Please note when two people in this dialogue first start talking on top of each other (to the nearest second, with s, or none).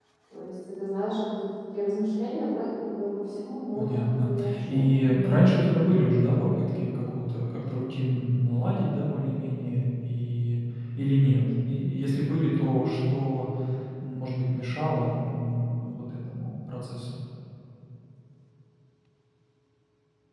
4 s